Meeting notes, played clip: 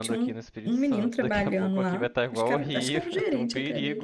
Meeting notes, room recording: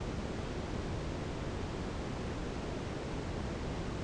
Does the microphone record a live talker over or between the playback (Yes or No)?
No